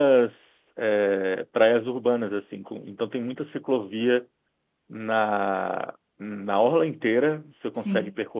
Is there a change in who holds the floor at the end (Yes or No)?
No